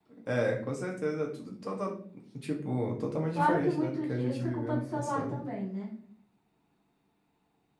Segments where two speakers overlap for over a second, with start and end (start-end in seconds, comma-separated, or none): 3.4-5.4